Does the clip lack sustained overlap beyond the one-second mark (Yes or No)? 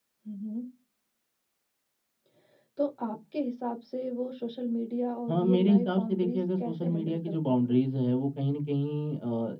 No